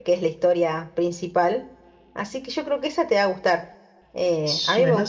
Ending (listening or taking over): taking over